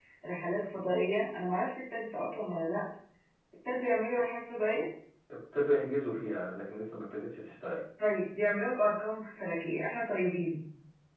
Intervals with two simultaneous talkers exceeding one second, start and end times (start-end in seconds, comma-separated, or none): none